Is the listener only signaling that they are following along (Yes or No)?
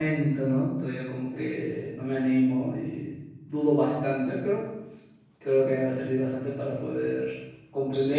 No